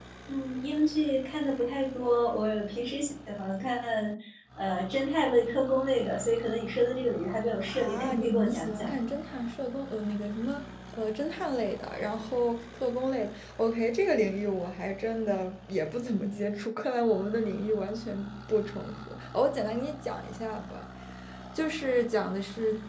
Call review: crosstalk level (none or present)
present